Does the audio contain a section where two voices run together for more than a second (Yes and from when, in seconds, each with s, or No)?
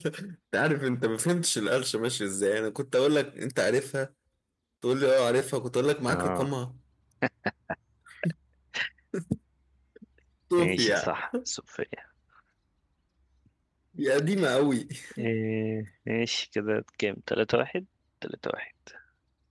No